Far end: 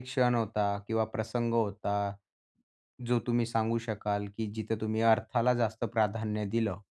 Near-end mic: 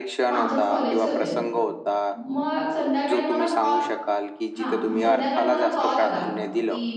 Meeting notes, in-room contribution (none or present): present